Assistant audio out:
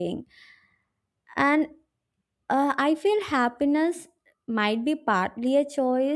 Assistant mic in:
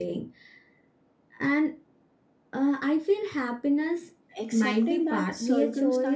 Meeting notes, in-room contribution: present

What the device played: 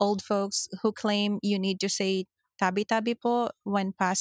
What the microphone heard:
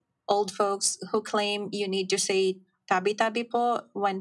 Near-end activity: none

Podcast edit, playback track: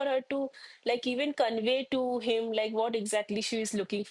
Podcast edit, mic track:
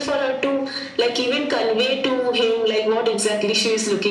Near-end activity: none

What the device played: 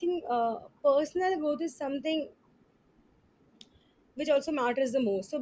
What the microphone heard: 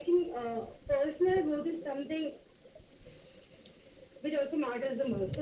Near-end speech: none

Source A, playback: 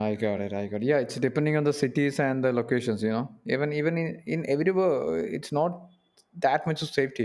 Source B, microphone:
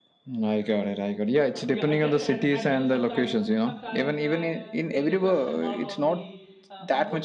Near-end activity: present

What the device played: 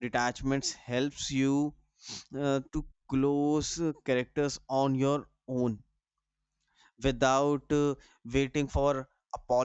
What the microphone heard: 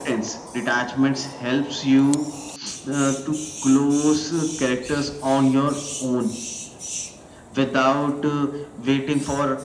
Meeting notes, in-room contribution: none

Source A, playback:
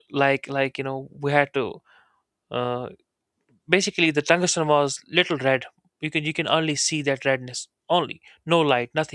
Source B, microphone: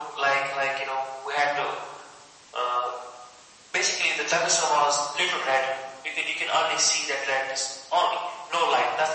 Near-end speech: none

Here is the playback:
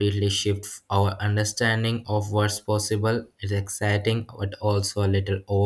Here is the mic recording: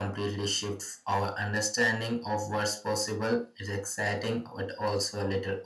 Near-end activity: none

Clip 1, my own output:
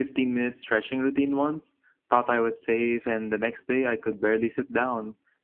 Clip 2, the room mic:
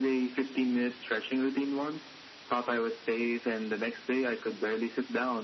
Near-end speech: none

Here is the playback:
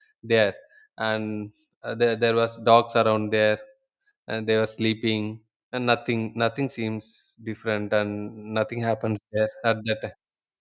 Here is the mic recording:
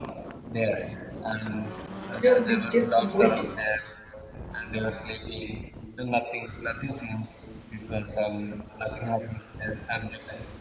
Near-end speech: present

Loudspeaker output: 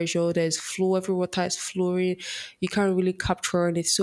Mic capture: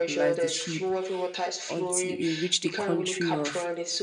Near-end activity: present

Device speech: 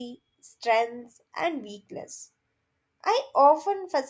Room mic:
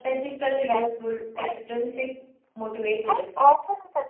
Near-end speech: present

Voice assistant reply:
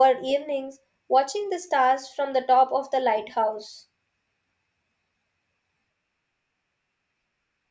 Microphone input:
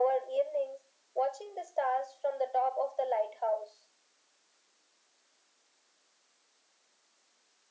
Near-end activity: none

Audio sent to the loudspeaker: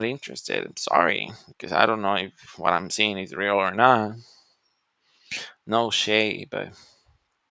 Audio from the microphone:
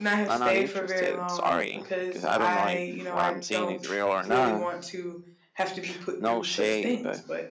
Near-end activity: present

